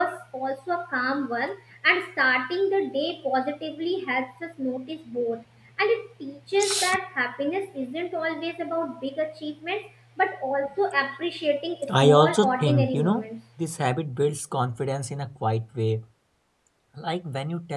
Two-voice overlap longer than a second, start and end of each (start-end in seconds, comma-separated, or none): 11.9-13.3